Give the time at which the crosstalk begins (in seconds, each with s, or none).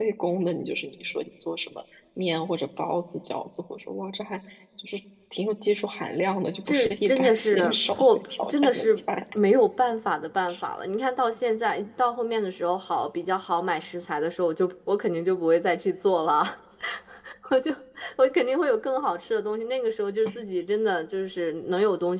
6.7 s